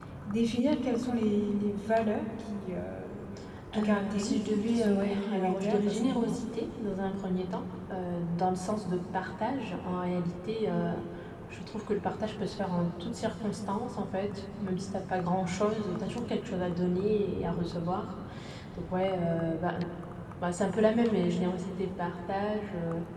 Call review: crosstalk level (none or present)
present